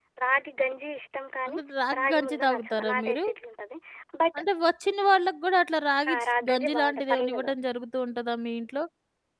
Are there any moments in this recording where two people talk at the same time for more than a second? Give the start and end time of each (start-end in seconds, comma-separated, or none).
2.0-3.2, 6.1-7.5